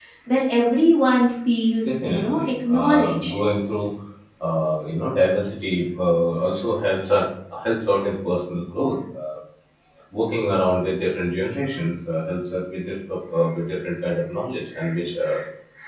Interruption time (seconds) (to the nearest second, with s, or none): 2 s